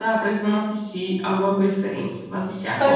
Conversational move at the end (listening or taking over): taking over